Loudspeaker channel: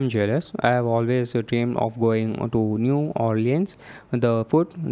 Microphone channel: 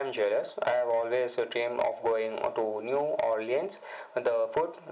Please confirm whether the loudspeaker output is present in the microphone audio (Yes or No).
Yes